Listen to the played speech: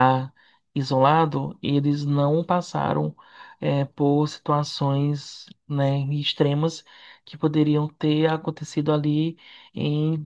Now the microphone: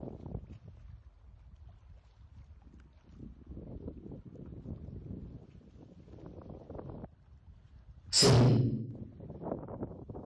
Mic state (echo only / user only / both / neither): user only